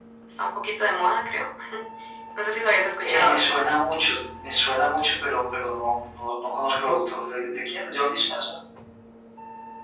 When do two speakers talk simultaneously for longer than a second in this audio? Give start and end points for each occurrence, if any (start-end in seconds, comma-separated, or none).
none